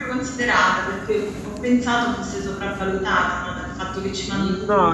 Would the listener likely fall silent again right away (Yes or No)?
No